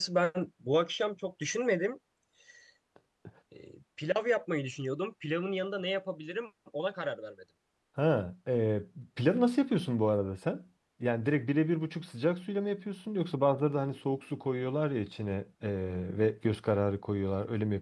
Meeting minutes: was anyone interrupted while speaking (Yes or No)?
No